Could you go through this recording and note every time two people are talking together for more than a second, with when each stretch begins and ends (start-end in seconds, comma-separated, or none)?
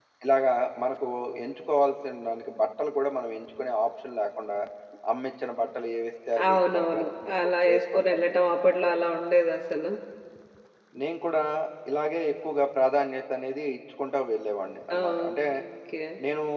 6.5-8.3